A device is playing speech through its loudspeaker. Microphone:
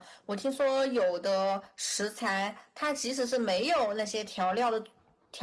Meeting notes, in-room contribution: none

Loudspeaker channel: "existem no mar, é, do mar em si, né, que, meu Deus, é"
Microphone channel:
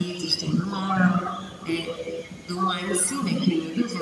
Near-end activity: none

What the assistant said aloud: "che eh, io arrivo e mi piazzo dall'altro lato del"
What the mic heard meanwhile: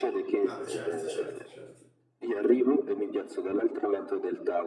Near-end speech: present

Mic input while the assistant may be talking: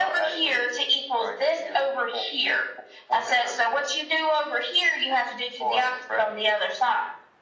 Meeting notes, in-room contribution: none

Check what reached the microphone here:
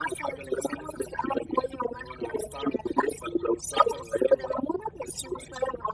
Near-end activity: none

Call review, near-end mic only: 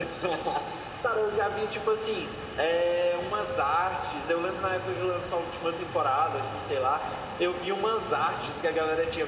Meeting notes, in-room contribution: none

